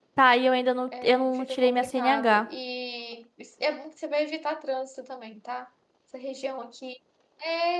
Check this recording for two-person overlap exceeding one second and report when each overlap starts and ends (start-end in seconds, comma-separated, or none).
1.0-2.5